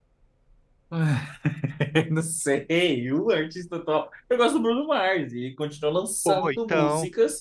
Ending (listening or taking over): listening